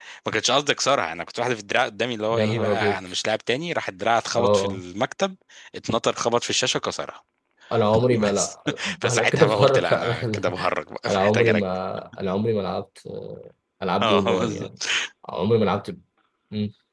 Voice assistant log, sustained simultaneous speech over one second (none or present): present